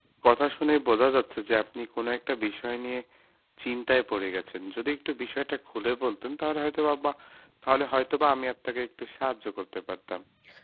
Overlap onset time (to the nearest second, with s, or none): none